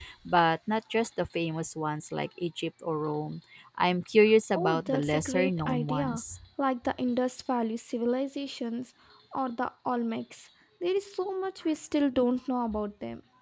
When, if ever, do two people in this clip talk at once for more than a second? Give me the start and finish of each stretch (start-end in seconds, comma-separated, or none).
4.6-6.2